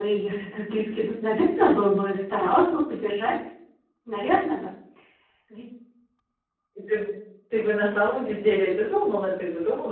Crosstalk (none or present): none